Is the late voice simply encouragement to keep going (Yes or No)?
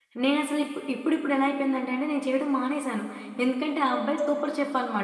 Yes